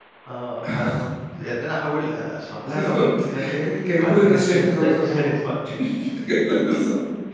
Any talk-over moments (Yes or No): Yes